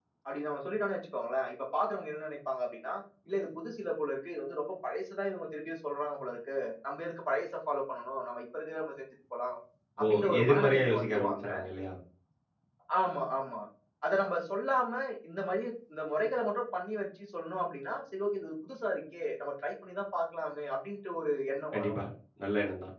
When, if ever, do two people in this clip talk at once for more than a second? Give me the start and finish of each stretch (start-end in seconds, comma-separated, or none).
10.0-11.5